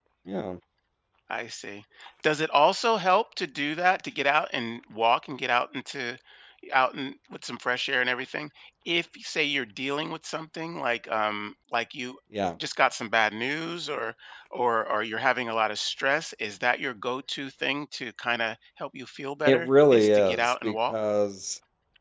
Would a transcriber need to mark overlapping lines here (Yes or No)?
Yes